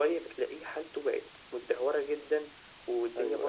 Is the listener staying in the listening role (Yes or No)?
Yes